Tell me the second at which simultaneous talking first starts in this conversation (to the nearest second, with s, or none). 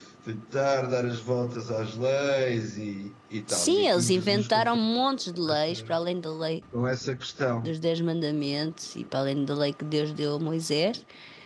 4 s